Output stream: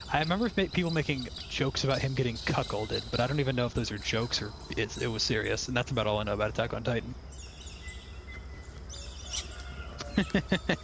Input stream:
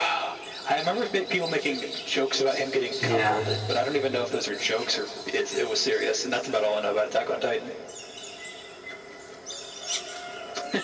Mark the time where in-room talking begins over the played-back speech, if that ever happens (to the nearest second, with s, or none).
3 s